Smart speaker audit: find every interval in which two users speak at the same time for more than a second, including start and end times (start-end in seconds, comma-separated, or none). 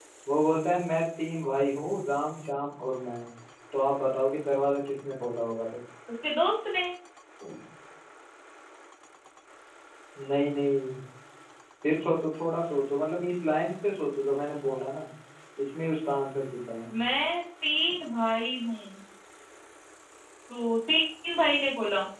none